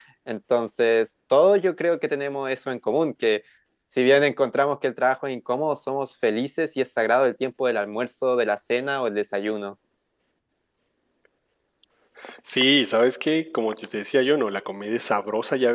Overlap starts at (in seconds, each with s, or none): none